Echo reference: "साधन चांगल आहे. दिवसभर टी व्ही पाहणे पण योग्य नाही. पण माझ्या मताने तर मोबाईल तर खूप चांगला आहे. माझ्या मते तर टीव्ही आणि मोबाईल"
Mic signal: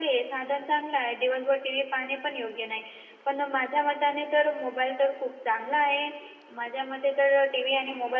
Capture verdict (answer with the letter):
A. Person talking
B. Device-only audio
B